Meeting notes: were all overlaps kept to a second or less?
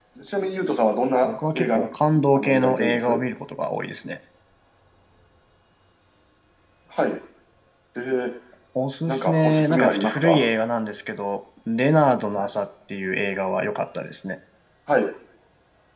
No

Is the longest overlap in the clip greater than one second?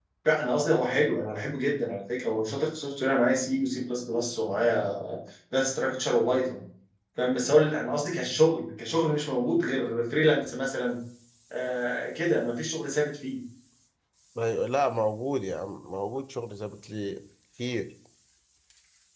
No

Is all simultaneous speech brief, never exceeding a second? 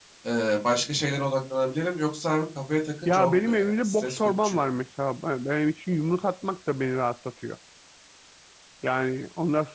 No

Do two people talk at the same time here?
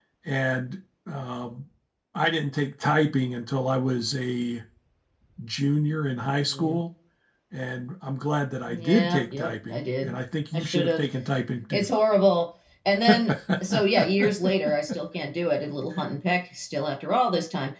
Yes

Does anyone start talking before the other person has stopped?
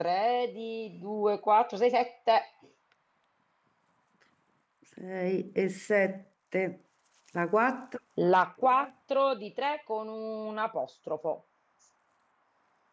No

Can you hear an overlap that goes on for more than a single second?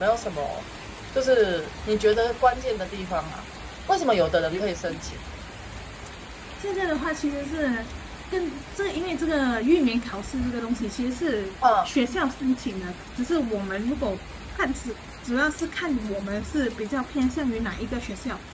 No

